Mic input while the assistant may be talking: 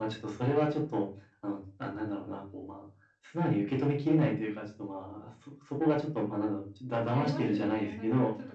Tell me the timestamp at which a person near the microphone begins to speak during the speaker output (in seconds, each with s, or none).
7.1 s